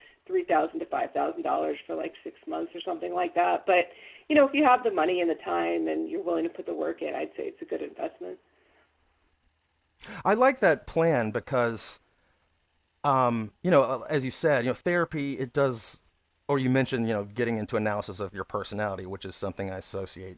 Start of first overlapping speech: none

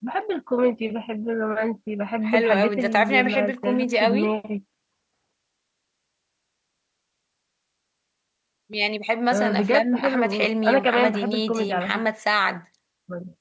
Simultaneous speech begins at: 2.2 s

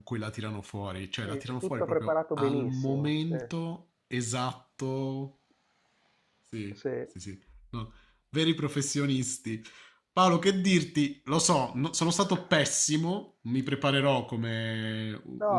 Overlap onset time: 1.2 s

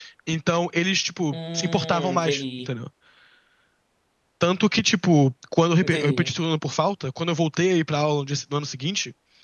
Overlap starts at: 1.3 s

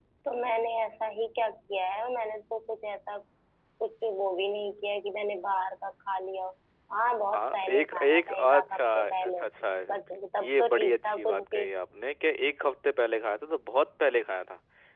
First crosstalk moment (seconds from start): 7.3 s

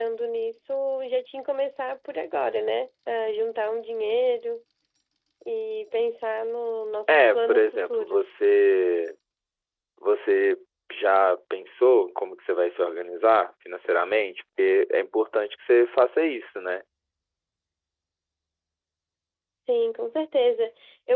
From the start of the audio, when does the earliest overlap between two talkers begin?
7.1 s

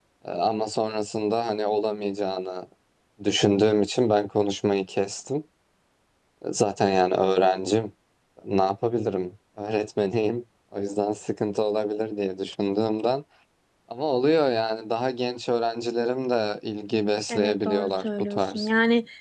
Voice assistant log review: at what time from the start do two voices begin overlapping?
17.3 s

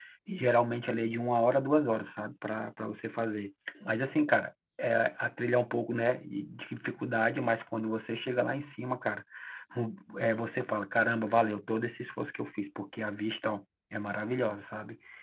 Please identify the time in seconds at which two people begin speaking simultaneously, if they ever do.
none

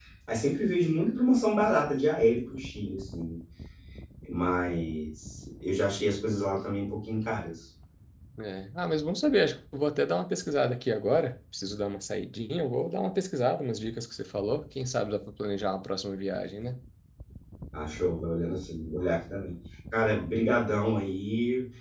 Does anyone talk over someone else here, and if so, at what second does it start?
none

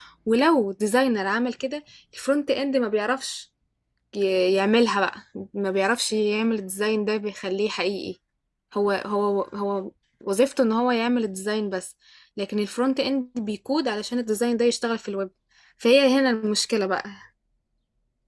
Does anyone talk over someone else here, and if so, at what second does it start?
none

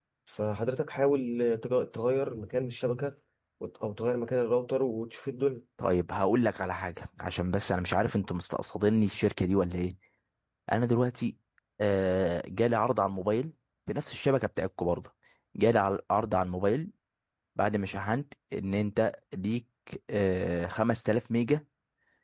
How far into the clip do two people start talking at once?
none

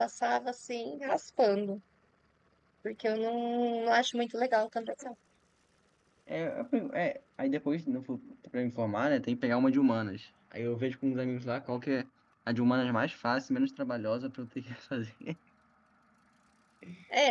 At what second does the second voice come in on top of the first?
none

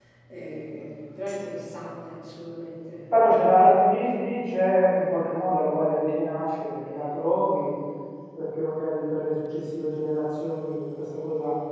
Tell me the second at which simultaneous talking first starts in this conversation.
none

